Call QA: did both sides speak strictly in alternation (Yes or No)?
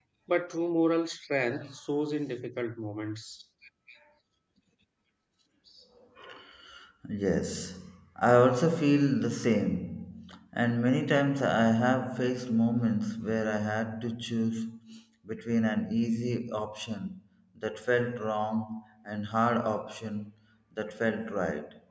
Yes